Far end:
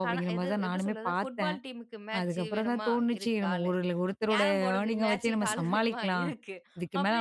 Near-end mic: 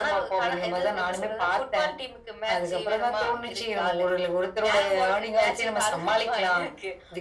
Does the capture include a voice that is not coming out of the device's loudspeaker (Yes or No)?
No